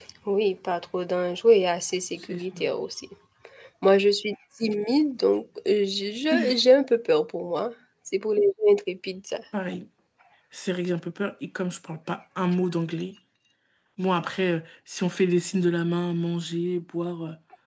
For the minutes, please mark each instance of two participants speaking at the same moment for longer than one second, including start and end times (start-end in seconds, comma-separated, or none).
none